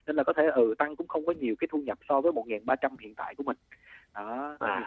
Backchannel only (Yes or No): No